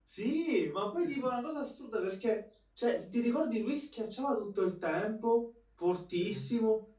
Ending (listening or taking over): listening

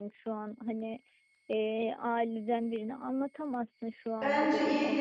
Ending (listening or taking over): taking over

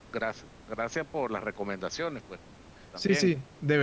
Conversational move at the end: taking over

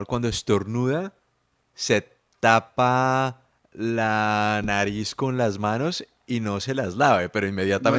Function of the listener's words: taking over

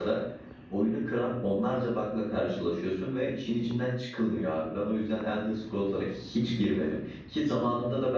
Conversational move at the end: listening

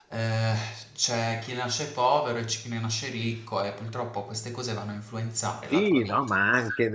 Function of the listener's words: taking over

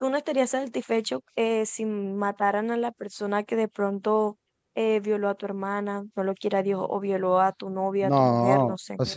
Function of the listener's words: taking over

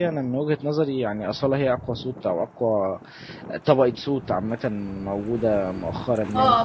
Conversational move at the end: taking over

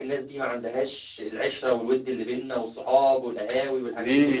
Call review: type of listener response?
taking over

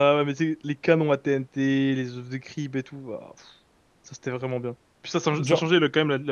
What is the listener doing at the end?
listening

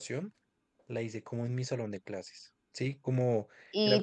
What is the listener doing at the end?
taking over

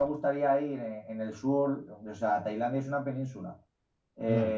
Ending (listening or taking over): listening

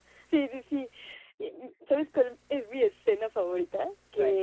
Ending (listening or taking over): listening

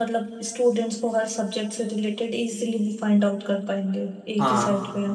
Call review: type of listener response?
taking over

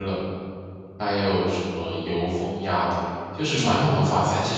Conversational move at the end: listening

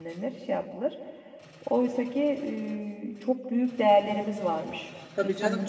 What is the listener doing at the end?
taking over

